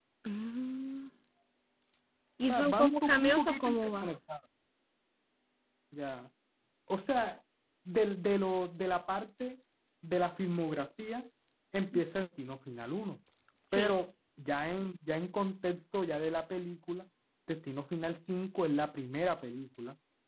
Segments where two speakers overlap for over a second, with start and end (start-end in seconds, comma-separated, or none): 2.5-4.1